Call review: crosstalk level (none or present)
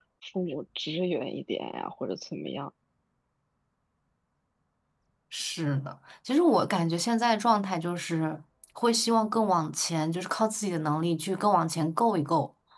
none